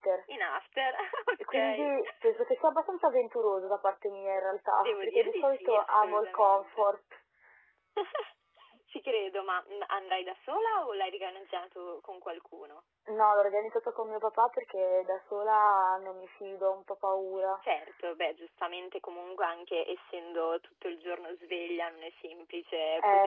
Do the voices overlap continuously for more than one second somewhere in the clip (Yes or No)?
Yes